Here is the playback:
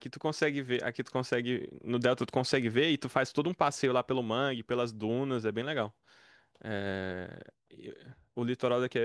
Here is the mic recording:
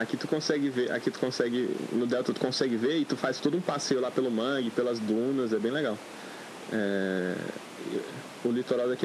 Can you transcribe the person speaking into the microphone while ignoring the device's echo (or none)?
none